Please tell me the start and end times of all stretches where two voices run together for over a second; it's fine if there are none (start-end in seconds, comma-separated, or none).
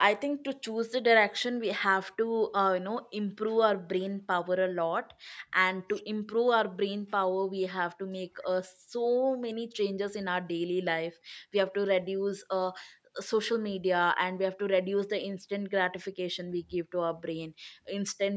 none